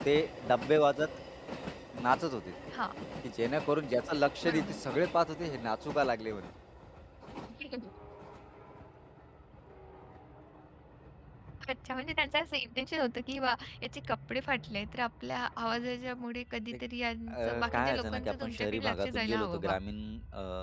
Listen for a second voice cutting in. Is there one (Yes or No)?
Yes